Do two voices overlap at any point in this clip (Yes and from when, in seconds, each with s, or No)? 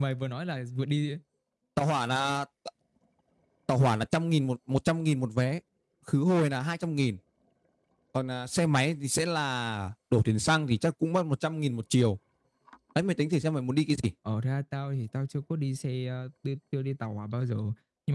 No